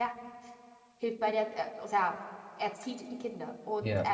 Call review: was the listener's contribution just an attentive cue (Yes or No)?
Yes